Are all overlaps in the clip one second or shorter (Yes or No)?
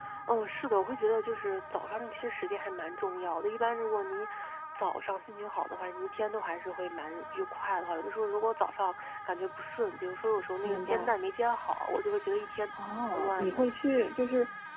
Yes